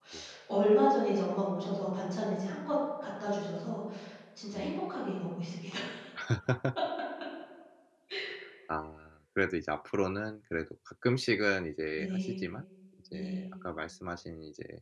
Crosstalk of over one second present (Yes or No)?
No